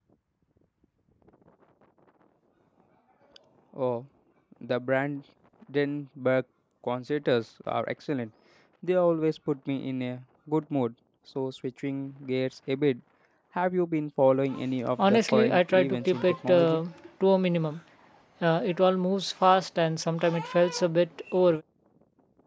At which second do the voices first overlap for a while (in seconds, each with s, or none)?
15.0 s